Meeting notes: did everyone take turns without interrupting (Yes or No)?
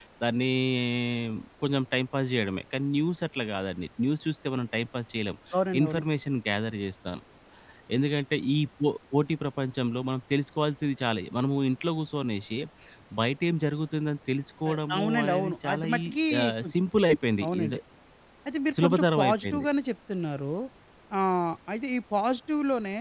No